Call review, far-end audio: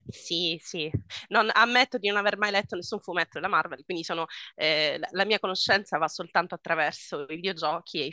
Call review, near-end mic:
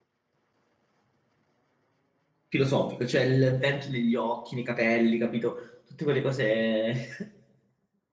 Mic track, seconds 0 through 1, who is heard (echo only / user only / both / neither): neither